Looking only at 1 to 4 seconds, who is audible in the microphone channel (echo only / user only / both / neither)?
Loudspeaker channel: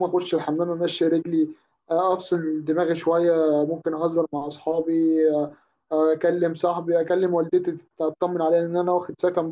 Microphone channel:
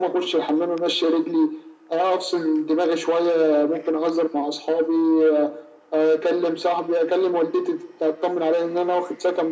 echo only